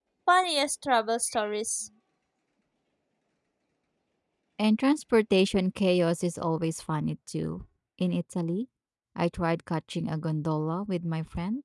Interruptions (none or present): none